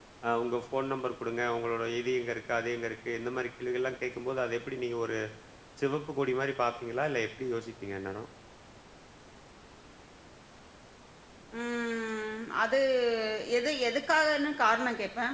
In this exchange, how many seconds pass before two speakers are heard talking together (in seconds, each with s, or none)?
none